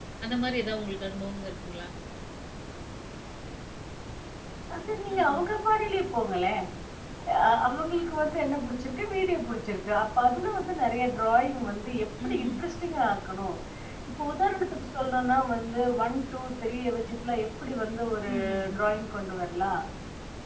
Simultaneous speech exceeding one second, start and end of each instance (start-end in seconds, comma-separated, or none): none